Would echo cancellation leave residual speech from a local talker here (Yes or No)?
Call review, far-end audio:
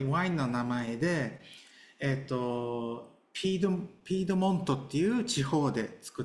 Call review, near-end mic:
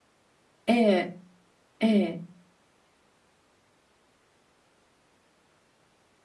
Yes